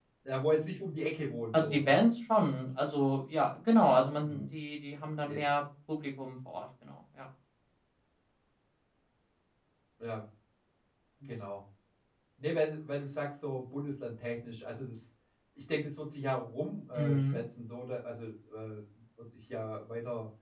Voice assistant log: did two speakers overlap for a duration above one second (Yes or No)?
No